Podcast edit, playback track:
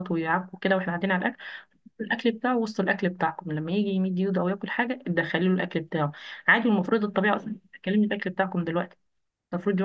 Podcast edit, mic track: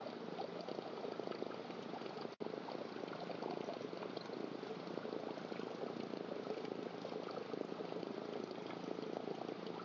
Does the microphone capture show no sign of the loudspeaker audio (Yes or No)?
Yes